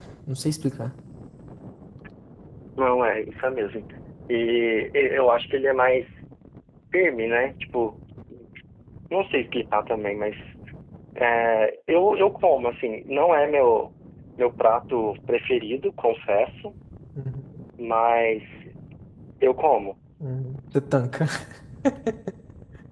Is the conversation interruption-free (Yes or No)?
Yes